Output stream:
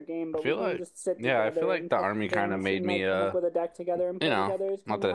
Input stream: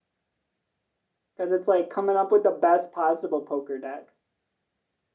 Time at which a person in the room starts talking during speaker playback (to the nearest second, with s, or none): 1 s